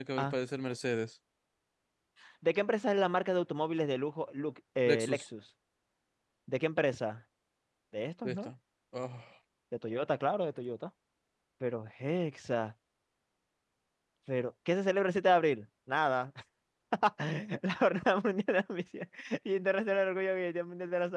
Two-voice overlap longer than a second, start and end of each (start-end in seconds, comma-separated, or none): none